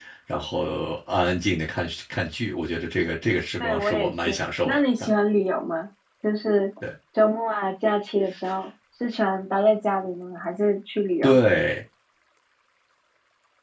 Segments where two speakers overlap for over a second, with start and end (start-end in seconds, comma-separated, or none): 3.6-5.2